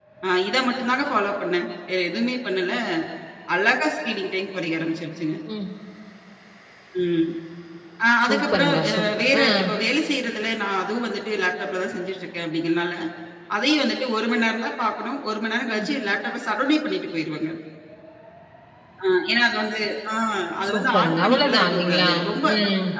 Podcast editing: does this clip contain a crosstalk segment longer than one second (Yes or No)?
Yes